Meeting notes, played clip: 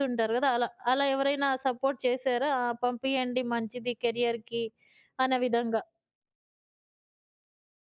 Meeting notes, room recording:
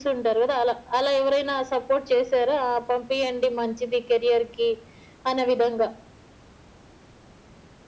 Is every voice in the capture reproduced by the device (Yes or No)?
Yes